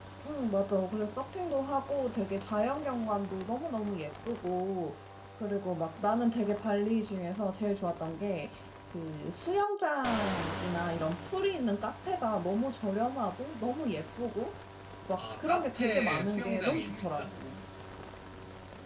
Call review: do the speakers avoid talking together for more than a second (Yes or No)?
No